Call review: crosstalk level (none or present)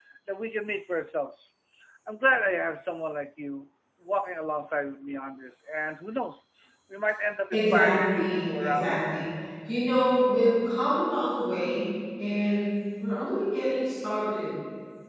present